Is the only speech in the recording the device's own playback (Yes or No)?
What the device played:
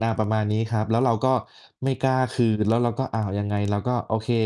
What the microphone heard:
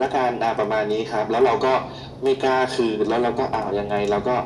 Yes